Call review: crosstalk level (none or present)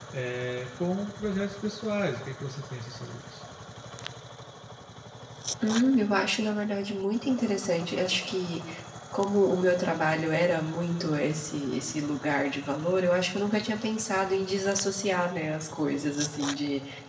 none